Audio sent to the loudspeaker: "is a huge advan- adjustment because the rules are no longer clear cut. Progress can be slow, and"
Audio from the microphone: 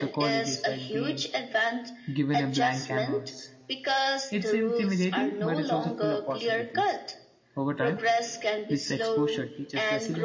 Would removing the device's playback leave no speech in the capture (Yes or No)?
No